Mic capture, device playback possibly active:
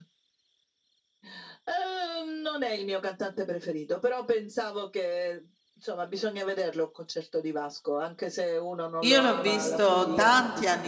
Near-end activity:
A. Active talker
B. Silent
A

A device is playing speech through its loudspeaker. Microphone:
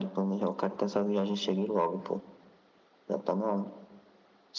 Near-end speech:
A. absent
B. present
A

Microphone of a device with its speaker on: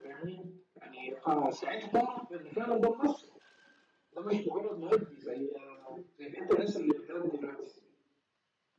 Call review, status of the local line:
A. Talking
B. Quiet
B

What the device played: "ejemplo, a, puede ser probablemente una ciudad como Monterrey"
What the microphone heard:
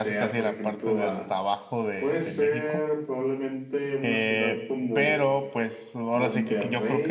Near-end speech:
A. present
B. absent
A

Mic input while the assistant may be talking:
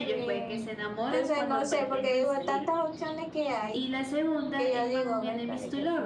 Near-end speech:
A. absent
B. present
B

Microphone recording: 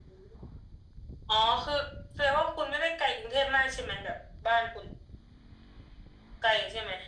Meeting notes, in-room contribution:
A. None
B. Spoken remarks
A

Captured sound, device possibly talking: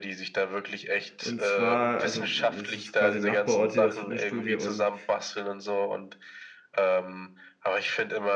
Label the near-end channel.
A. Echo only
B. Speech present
B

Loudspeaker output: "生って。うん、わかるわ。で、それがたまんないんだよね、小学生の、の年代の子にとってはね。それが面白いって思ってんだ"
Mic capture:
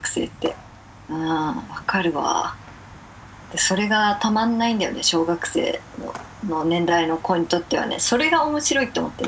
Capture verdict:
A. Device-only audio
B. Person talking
A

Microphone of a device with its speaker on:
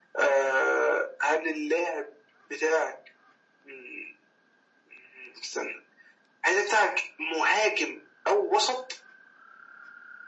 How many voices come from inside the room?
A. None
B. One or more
A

